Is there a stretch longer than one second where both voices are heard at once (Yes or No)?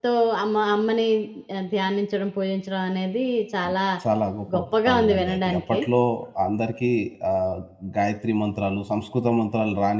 Yes